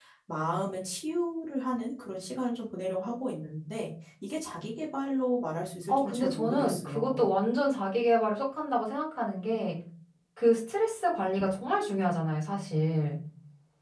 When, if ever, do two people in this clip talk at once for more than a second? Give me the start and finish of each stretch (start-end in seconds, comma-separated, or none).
5.9-7.2